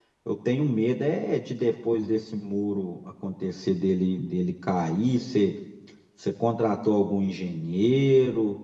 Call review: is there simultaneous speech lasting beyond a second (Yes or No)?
No